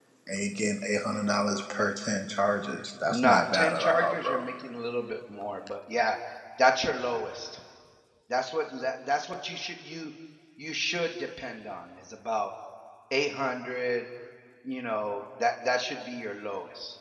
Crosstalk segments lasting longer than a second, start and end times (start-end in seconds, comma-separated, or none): 3.1-4.5